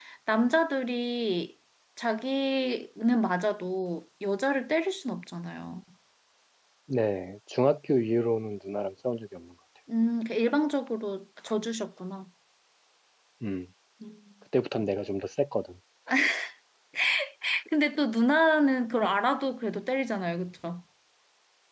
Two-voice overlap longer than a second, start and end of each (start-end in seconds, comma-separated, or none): none